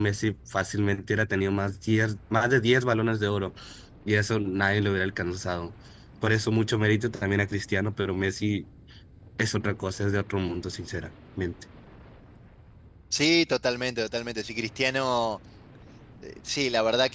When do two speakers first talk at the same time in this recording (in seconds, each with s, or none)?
none